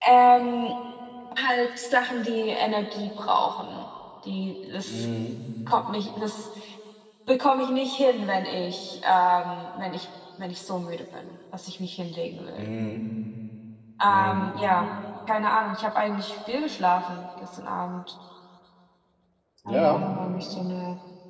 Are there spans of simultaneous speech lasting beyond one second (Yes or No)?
No